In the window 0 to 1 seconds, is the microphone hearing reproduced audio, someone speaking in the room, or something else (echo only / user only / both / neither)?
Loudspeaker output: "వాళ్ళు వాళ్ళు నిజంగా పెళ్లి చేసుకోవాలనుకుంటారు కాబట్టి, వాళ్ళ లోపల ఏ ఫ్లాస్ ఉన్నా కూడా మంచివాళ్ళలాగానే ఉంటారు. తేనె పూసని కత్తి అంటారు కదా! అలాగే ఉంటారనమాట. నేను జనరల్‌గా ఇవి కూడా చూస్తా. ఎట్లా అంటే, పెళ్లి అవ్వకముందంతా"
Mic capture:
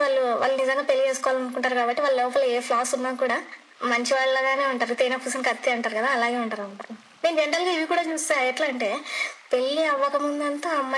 echo only